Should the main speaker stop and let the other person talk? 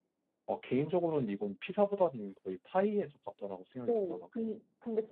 Yes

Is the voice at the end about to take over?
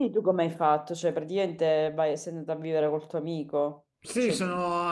Yes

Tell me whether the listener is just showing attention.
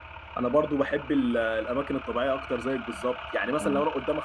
Yes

